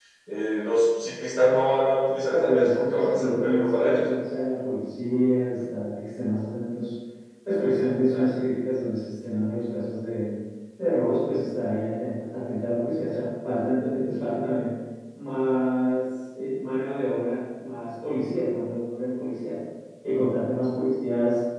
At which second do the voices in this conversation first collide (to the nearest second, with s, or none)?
2 s